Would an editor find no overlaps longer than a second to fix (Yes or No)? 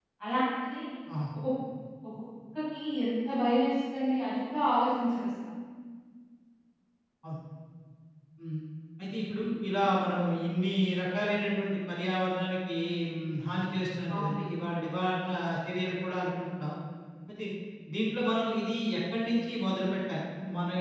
Yes